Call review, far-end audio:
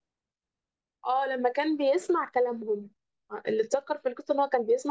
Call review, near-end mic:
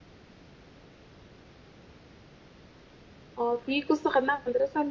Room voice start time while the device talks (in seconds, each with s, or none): 3.4 s